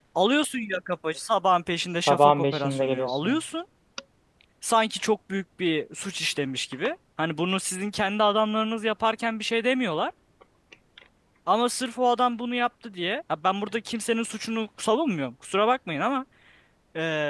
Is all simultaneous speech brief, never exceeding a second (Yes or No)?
No